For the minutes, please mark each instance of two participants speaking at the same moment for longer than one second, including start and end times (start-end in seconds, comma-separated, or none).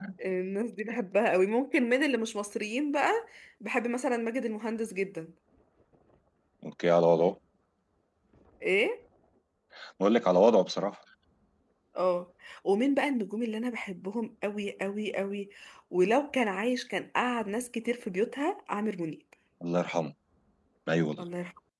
none